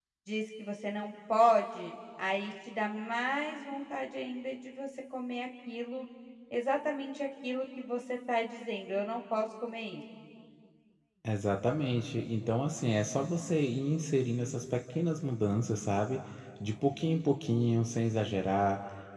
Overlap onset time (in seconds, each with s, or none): none